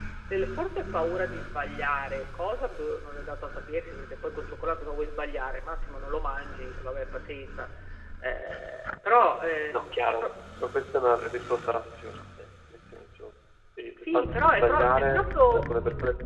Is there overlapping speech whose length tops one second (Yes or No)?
Yes